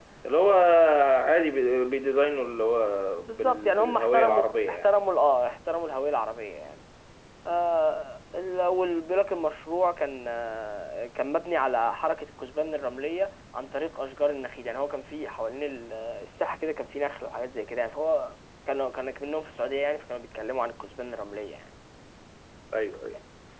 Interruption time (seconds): 3.2 s

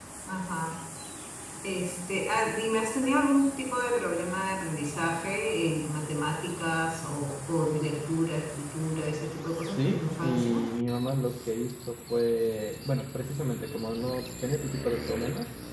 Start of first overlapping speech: 9.4 s

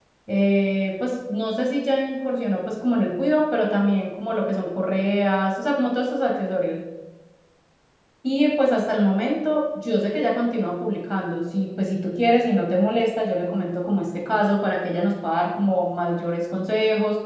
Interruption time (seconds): none

